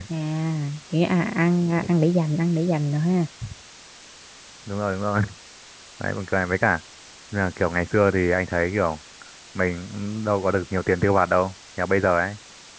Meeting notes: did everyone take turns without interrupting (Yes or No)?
Yes